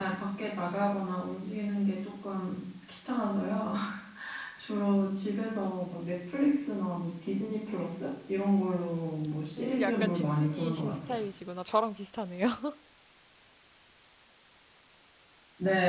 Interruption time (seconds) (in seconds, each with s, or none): 9.6 s